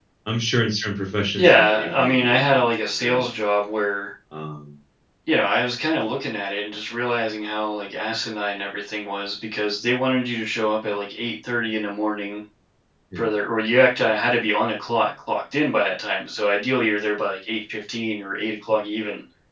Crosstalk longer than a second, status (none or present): present